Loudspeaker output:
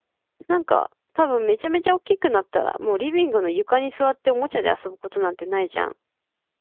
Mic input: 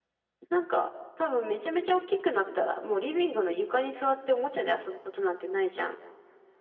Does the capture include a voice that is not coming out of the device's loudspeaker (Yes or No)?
No